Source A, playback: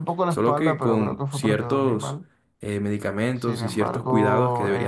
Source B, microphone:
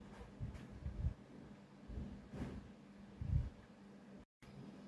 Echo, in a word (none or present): none